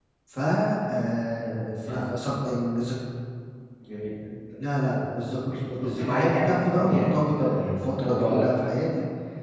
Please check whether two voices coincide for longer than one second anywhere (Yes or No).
Yes